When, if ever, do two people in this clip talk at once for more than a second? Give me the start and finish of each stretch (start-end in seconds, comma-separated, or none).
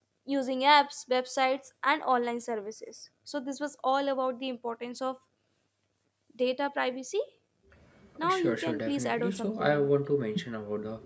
8.3-9.9